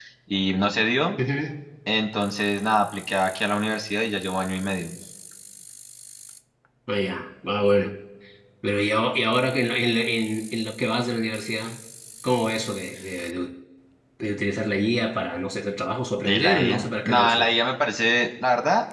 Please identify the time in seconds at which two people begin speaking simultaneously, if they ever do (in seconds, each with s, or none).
16.2 s